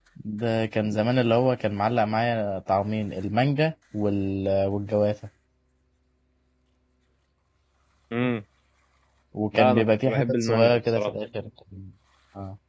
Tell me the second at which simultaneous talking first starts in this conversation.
9.5 s

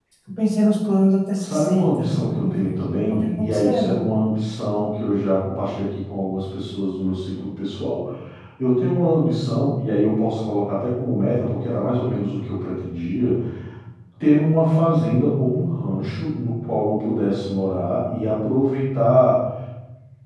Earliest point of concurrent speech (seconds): 1.4 s

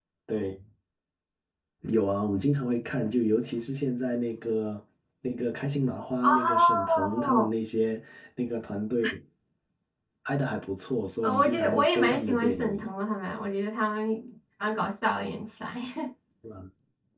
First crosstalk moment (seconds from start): 6.2 s

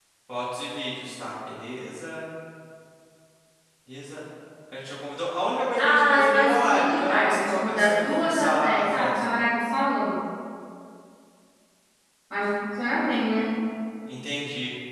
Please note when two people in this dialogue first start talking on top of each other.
5.8 s

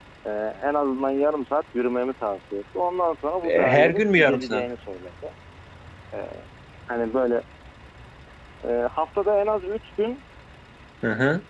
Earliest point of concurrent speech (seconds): 3.4 s

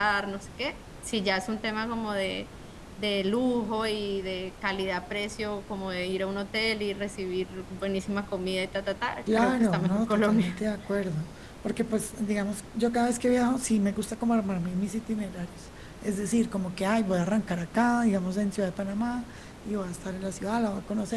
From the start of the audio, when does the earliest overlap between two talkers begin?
9.3 s

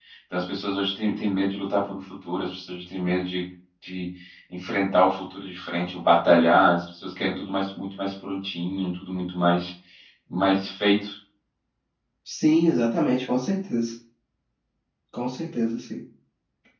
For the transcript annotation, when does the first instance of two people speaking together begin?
none

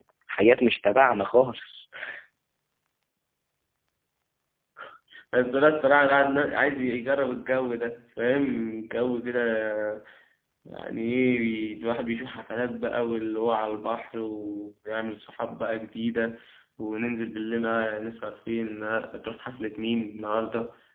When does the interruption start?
none

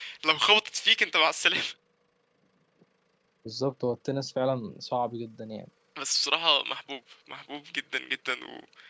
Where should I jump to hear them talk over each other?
none

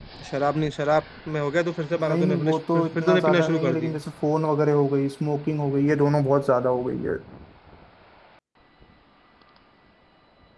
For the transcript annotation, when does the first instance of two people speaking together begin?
1.9 s

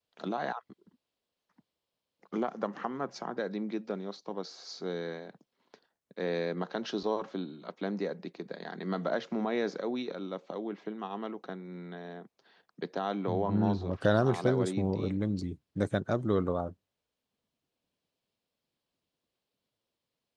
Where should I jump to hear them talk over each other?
13.3 s

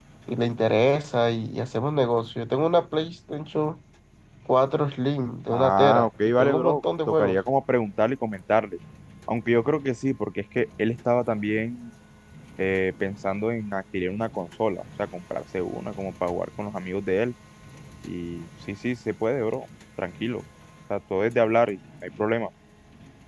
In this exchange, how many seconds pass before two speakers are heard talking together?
5.5 s

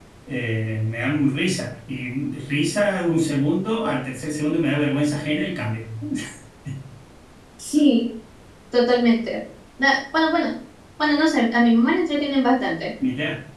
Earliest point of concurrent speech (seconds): none

